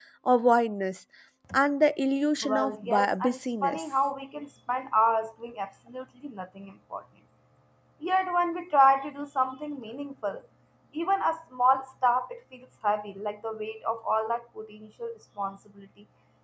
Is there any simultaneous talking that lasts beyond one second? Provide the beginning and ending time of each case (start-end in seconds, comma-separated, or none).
2.4-3.8